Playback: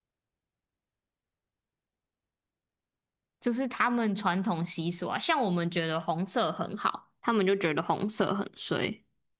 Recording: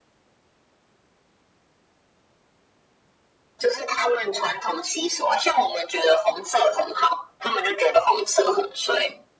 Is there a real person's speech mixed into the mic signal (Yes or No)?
No